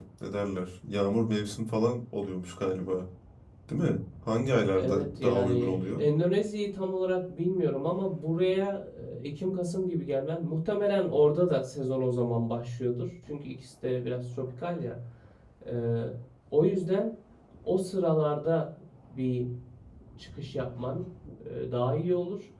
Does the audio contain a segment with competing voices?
Yes, from 4.8 s

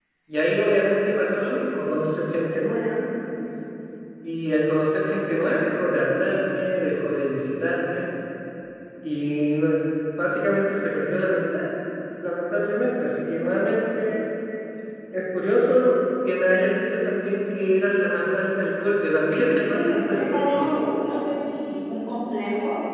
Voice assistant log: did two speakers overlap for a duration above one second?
Yes, from 19.3 s

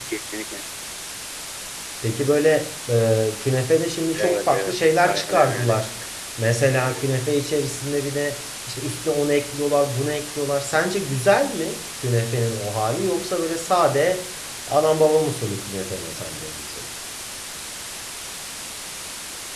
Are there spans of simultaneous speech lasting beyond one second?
Yes, from 4.1 s

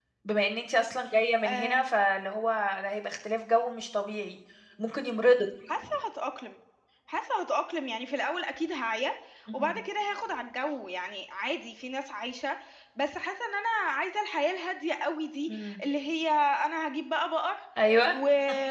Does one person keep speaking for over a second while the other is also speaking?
No

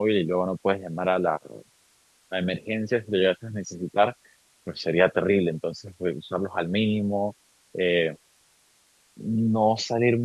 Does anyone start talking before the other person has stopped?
No

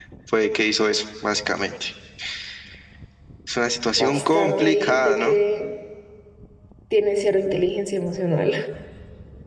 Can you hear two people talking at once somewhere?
Yes, from 4.0 s

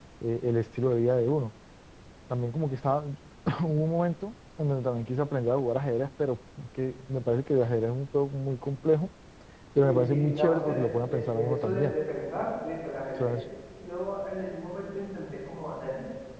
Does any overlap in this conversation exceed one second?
Yes, from 9.8 s

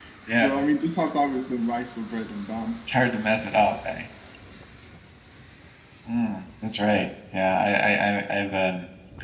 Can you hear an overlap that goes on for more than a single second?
No

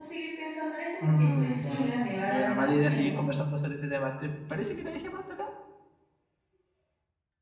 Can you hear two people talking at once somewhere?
Yes, from 1.0 s

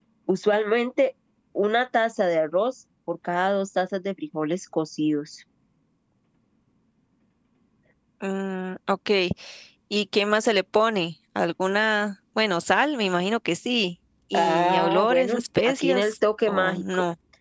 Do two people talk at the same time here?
Yes, from 14.3 s

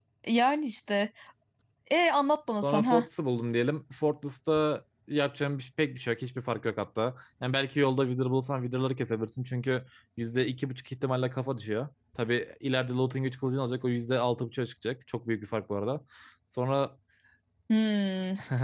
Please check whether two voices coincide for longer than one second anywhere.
No

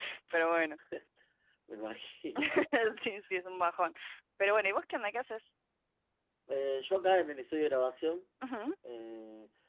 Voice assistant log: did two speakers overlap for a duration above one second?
No

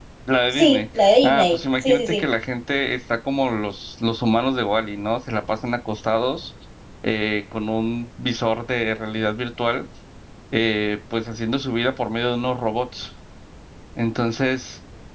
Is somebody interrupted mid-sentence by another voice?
Yes, from 0.5 s

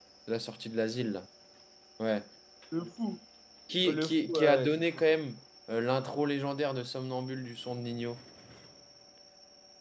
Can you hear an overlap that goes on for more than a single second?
Yes, from 3.8 s

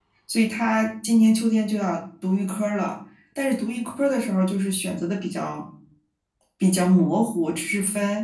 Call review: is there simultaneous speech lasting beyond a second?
No

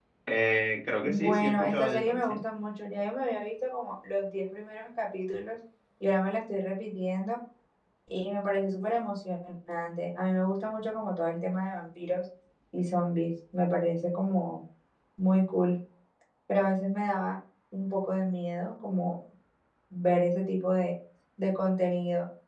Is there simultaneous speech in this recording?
Yes, from 1.1 s

